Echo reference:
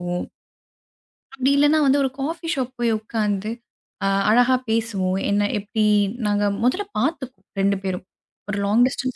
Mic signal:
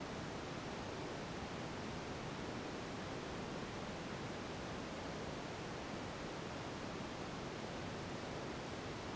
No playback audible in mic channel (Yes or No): Yes